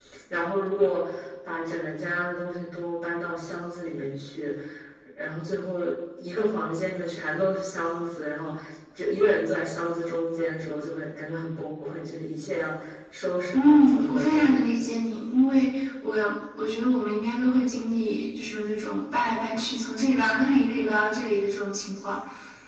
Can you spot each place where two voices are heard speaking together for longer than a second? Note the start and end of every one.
13.5-14.8

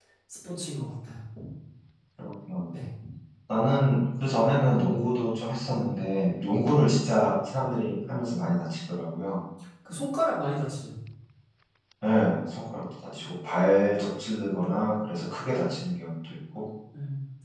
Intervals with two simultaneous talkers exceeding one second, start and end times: none

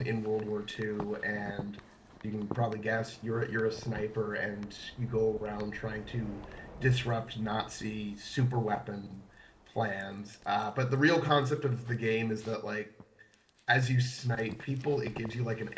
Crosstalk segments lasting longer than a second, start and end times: none

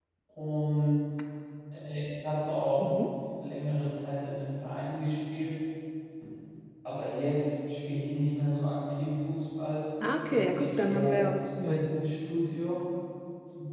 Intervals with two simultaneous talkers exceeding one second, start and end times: 10.3-12.1

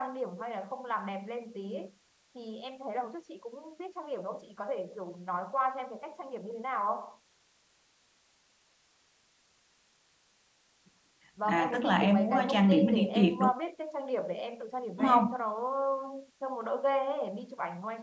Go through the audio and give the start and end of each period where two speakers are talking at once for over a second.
11.5-13.5

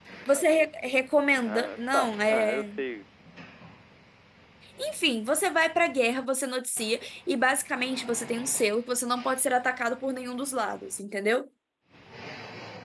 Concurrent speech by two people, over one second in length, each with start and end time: 1.4-2.7

